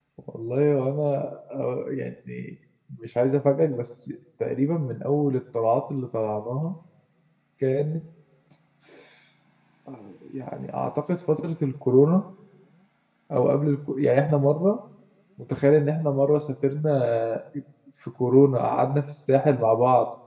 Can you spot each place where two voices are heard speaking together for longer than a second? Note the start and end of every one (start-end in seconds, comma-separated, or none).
none